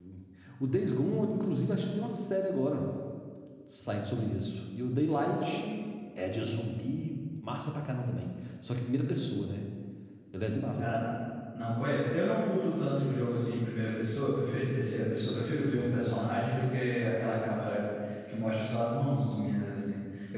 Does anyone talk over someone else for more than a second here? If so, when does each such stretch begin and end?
none

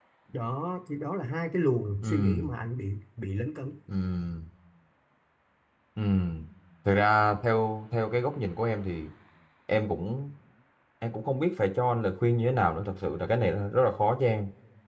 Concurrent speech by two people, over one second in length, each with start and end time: none

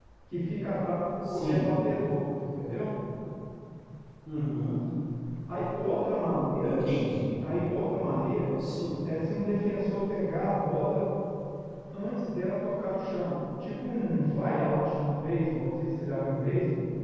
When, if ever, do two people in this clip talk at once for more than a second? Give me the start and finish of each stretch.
none

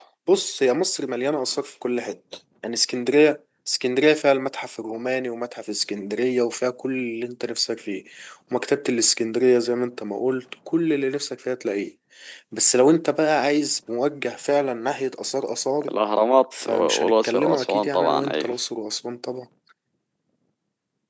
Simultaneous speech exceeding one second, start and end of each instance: 16.6-18.5

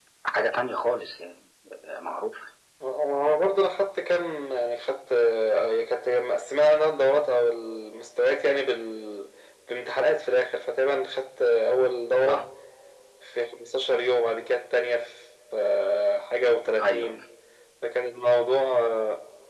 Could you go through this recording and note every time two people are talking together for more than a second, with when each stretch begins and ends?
none

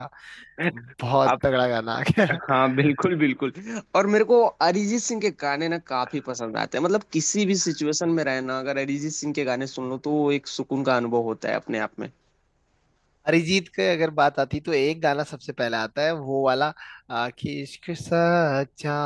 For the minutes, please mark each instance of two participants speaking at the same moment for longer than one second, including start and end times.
none

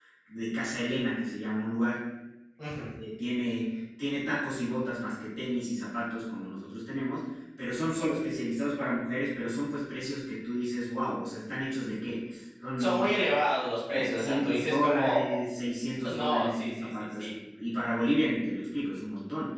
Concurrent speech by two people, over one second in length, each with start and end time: 13.9-15.4, 16.1-17.3

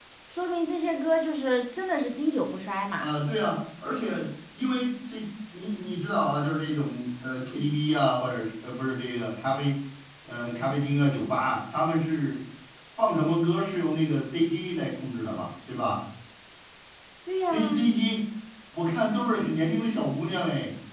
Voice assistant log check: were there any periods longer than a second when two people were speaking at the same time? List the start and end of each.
none

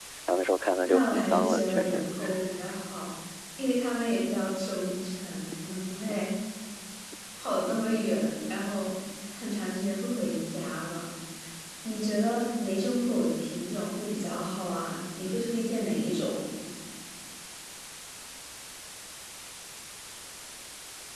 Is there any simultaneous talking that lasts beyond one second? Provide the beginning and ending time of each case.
0.9-2.1

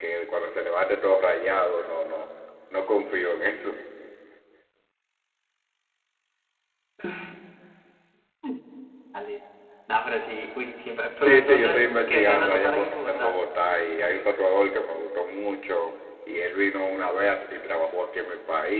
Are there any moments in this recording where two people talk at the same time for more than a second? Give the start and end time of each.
11.2-13.4

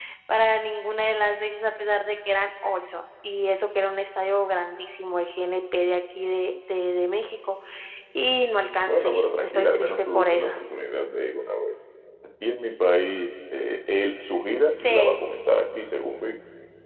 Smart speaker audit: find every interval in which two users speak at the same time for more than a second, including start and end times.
8.8-10.5

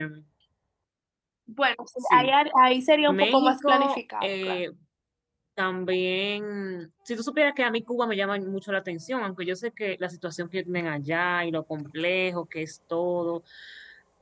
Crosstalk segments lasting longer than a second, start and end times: 3.1-4.6

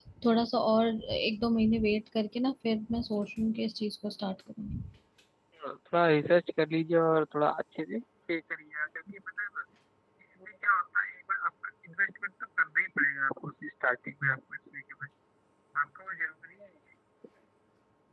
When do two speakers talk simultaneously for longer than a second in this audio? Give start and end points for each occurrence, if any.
none

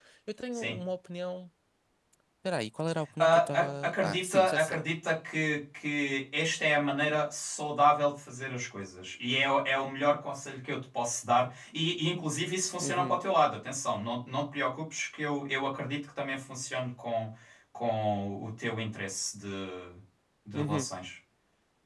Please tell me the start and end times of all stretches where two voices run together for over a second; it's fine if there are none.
3.2-4.8

